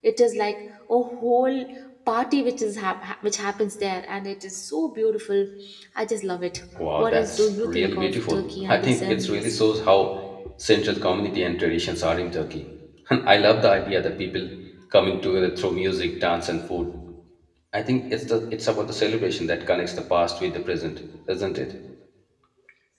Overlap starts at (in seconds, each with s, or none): 6.8 s